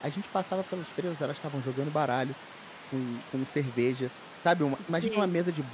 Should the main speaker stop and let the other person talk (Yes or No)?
No